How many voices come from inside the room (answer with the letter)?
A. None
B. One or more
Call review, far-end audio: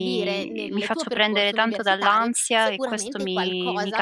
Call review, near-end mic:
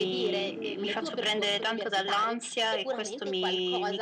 A